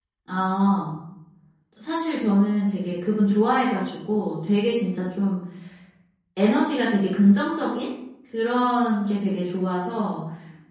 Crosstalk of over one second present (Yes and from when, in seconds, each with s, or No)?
No